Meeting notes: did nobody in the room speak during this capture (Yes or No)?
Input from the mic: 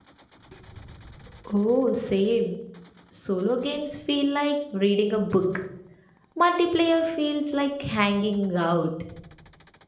No